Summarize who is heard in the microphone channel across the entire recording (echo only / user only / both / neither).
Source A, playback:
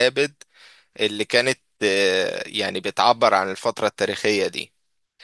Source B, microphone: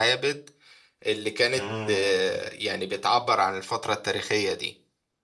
both